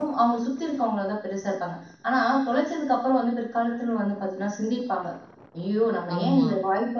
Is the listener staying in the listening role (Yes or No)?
Yes